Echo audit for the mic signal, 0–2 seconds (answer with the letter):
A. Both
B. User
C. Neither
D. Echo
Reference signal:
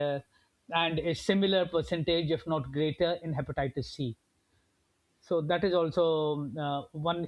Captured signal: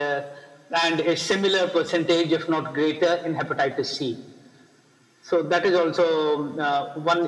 D